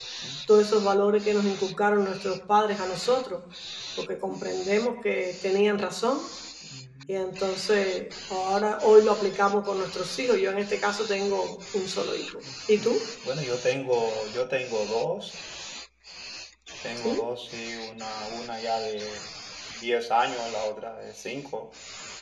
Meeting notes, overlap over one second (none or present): none